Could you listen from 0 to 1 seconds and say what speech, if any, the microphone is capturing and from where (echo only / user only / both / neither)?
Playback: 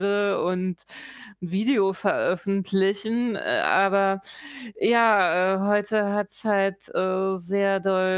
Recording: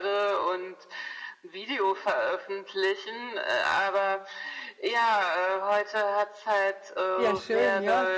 echo only